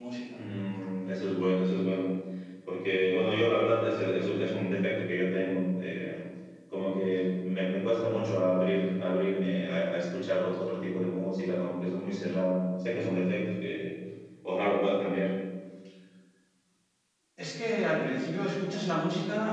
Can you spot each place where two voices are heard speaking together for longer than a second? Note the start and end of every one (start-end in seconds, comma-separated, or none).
none